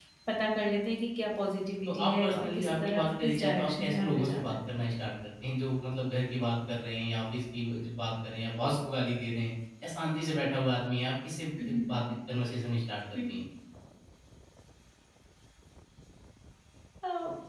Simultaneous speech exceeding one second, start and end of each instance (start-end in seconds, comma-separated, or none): 1.9-4.5